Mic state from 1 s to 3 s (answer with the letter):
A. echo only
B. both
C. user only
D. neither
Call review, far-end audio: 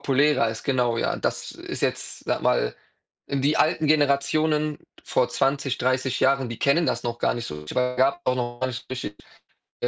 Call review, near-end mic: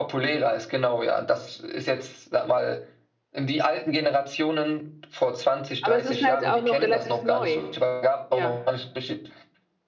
A